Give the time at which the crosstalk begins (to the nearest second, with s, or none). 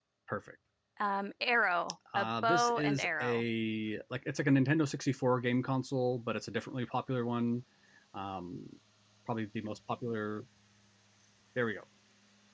2 s